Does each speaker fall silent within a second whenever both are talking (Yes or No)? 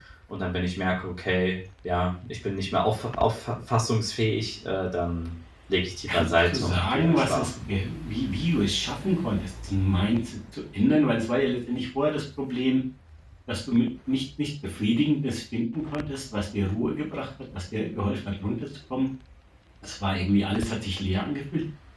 No